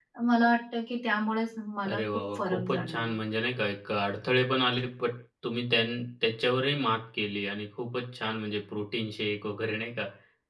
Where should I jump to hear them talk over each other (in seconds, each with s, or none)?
1.9 s